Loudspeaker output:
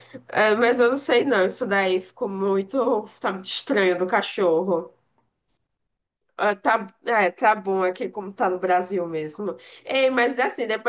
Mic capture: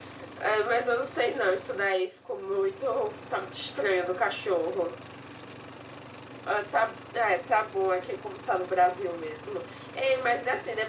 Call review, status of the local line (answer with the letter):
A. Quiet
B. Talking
A